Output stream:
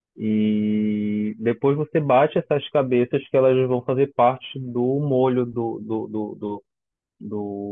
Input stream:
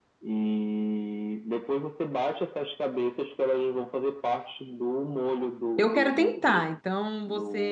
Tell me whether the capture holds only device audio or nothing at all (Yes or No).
No